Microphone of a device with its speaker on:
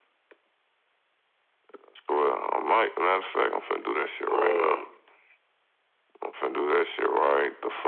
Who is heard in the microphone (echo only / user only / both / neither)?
both